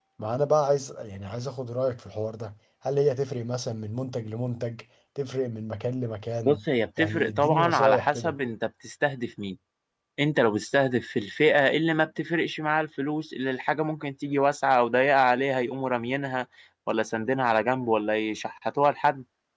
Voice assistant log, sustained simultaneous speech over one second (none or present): present